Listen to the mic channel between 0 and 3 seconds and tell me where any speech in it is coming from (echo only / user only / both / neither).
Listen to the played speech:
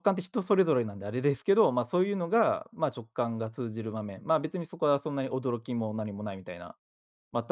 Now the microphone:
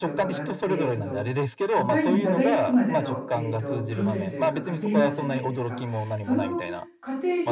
both